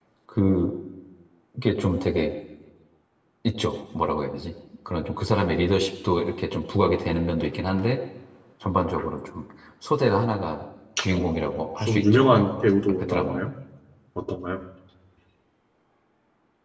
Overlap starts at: 11.1 s

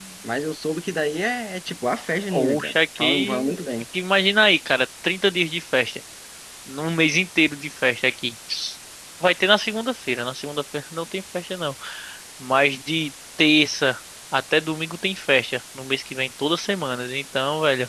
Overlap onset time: 2.3 s

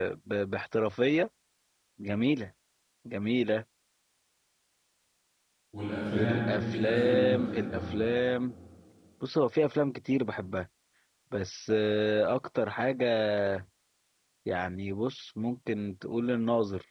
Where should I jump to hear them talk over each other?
6.1 s

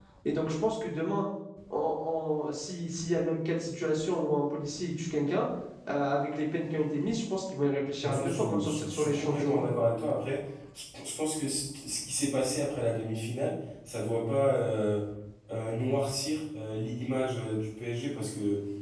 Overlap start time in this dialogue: 8.0 s

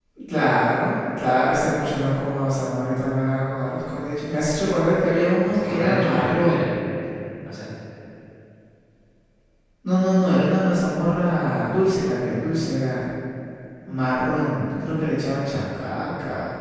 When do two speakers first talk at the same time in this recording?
5.5 s

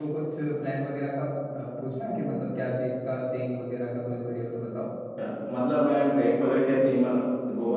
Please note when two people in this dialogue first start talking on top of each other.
none

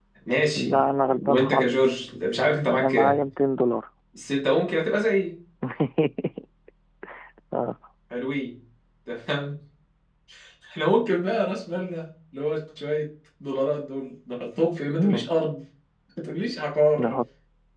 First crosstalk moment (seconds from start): 0.6 s

